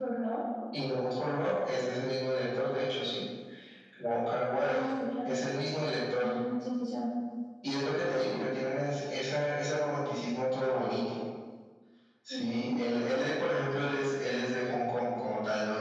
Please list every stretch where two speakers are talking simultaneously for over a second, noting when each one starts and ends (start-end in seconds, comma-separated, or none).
none